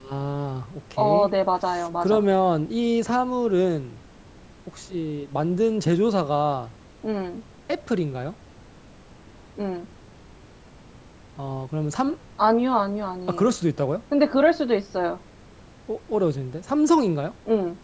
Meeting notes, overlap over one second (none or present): none